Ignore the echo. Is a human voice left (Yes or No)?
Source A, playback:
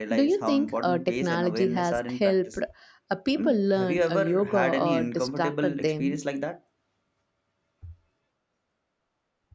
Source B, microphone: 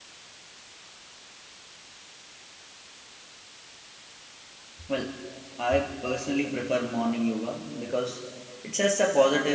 Yes